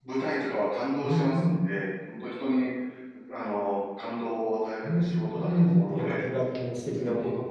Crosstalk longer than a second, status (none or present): present